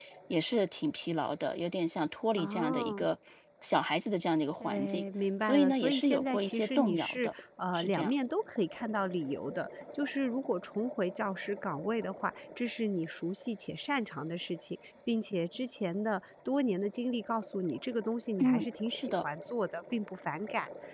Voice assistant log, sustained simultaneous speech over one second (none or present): present